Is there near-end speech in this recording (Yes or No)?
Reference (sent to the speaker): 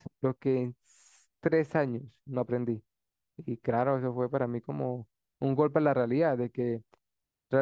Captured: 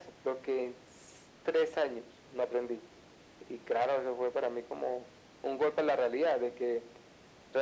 No